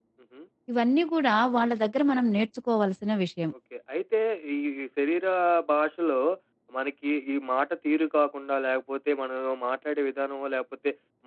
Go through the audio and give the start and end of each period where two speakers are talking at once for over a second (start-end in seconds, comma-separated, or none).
none